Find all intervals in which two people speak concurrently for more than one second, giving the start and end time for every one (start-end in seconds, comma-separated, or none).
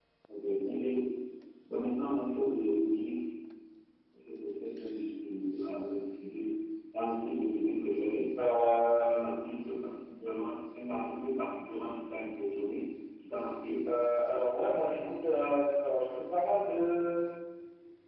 none